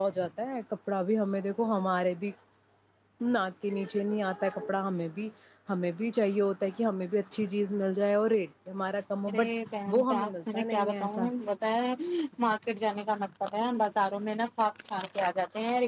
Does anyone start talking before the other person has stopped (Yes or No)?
Yes